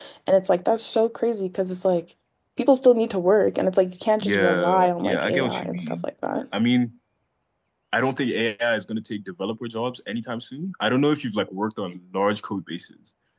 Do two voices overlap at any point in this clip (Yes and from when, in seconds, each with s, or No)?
Yes, from 4.2 s